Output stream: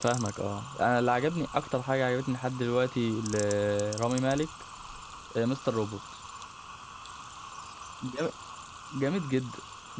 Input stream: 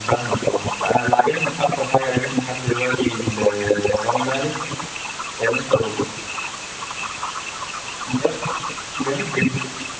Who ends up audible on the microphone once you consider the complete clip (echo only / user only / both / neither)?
echo only